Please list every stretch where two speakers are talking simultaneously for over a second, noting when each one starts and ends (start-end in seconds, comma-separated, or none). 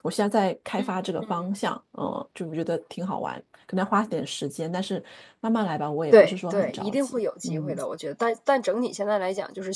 6.1-7.8